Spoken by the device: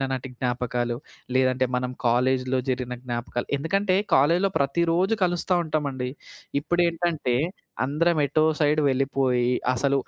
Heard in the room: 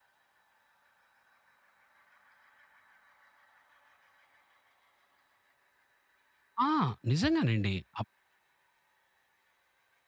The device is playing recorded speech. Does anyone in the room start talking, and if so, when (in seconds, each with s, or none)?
6.6 s